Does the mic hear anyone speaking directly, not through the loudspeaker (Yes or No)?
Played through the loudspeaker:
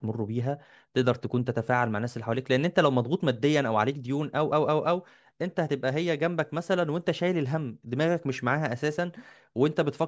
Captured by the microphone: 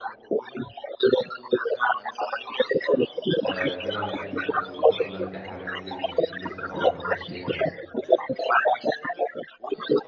Yes